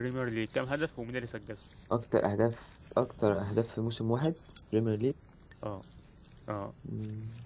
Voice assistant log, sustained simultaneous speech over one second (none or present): none